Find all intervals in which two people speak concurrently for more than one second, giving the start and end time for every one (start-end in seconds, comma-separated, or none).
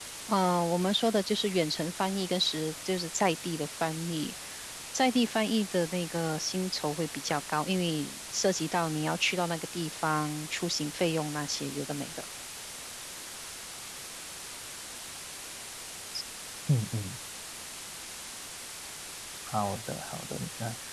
none